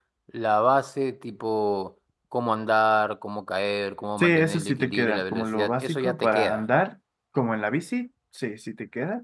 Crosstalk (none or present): present